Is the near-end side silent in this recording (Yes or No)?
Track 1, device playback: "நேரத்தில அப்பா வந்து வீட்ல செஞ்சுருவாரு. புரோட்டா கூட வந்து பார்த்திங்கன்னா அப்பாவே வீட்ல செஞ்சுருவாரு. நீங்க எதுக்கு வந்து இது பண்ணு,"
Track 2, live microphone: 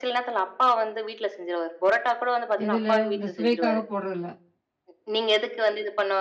No